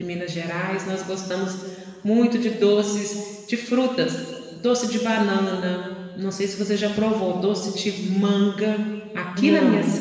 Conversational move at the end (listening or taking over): listening